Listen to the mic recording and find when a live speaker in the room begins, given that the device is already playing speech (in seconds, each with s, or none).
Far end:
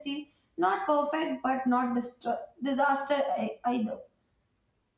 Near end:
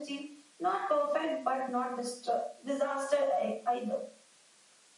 none